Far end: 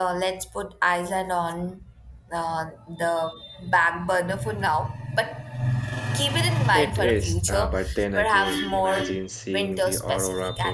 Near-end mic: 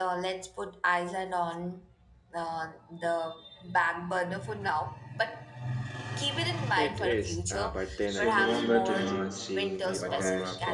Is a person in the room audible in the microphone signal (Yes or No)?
Yes